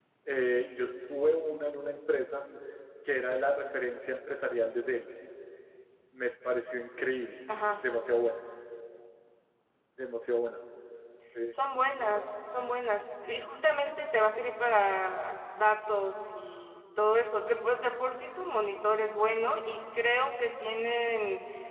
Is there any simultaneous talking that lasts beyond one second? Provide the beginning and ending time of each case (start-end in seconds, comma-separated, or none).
none